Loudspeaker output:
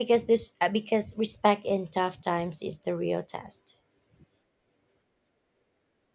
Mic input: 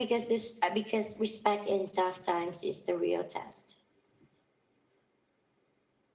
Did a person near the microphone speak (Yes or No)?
No